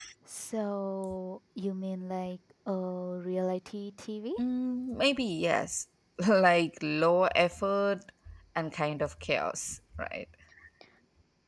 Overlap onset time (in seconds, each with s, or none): none